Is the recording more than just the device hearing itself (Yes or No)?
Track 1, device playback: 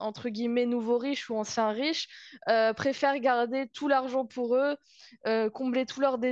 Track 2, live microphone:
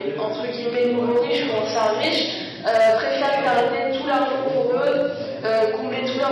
Yes